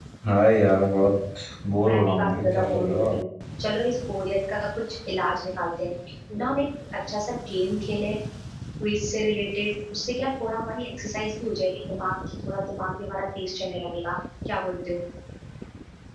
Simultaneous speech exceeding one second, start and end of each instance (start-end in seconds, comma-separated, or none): 1.9-3.2